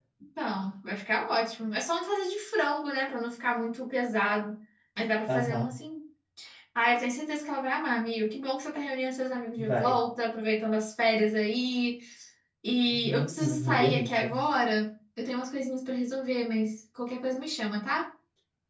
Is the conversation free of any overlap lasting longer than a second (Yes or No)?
No